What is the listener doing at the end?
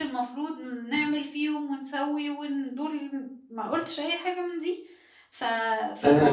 taking over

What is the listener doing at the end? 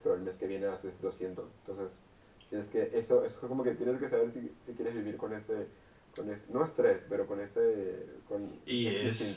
taking over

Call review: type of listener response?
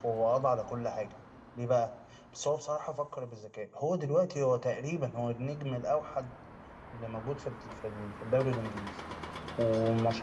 listening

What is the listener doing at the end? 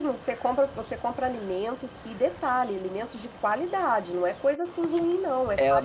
taking over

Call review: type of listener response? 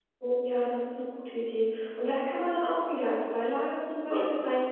listening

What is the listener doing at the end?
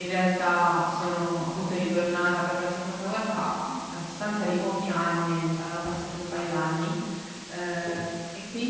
listening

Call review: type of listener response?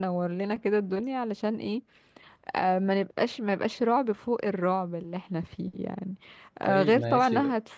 listening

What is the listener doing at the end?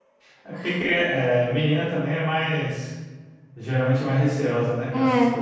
taking over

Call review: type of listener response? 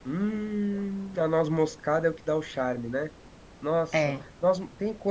listening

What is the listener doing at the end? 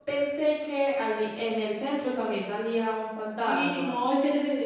taking over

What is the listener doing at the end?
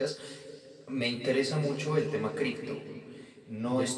listening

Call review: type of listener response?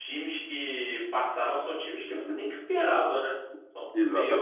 taking over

